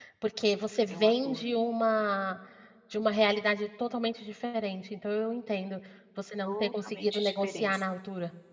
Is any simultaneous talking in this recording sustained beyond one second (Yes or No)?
Yes